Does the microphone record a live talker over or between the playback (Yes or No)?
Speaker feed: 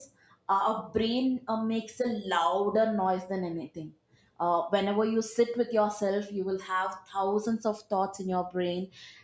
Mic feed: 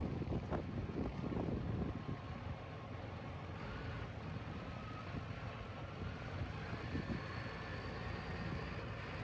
No